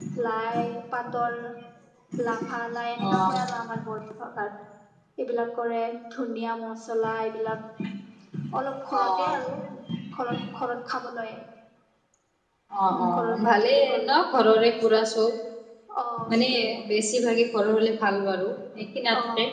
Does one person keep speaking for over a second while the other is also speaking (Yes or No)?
Yes